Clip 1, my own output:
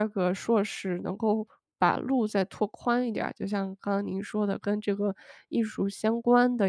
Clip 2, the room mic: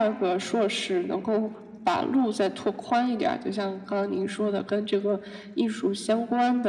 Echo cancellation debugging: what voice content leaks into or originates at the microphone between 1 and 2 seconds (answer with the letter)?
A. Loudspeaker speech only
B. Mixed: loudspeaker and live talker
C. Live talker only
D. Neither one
A